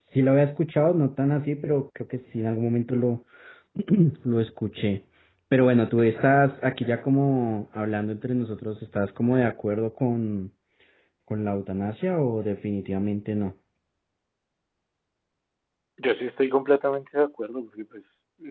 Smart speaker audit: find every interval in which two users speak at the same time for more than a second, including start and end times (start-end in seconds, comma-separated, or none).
none